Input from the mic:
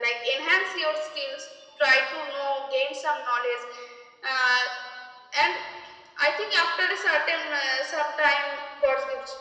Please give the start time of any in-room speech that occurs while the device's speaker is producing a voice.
none

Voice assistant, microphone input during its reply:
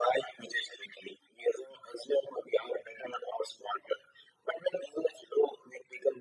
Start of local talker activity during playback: none

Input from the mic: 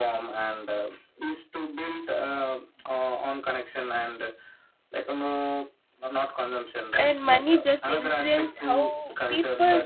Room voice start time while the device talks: 7.0 s

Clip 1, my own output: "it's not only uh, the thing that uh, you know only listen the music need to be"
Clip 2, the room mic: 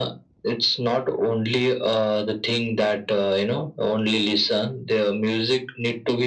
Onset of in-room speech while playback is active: none

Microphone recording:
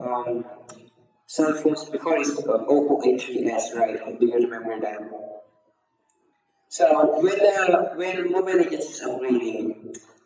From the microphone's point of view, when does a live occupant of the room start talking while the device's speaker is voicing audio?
none

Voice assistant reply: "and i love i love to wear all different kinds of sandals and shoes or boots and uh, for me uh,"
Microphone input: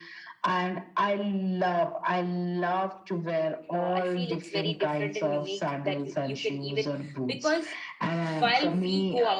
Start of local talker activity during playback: 3.7 s

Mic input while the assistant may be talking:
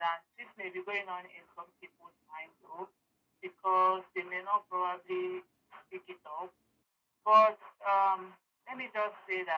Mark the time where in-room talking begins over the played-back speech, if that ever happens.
none

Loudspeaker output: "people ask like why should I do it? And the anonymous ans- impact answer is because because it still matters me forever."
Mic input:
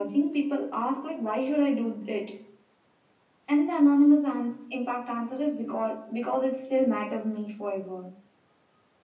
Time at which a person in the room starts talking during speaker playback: none

